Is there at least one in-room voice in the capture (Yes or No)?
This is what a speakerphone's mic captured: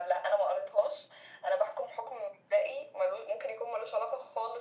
No